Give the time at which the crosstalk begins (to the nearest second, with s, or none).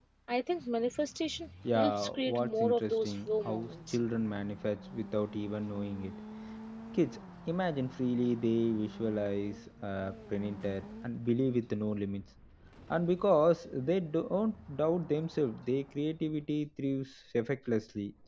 2 s